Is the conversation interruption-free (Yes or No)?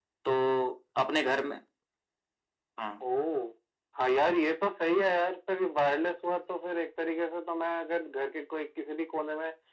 Yes